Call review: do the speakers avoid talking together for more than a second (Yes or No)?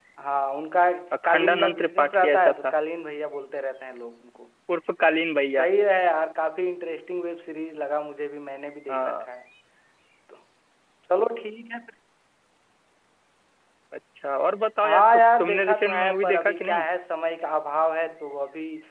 No